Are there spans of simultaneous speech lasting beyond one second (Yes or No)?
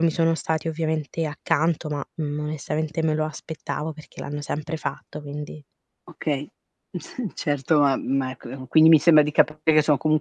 No